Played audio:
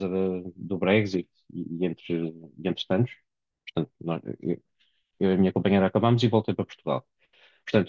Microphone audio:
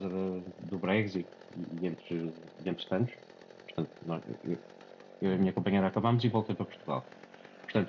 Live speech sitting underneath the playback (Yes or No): Yes